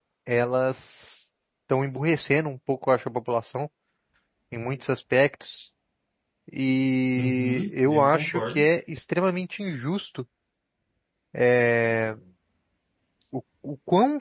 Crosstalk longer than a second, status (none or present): present